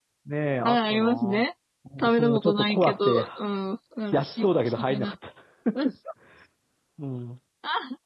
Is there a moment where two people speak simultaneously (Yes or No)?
Yes